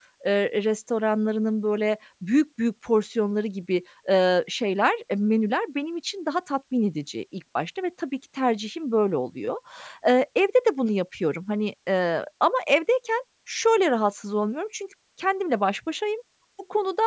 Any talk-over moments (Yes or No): No